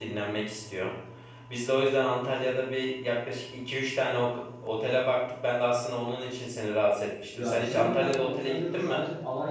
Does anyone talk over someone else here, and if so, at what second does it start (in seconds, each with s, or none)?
7.3 s